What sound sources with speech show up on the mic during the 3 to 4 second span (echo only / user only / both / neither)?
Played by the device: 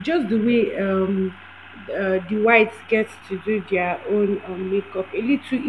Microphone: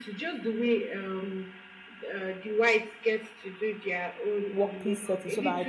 echo only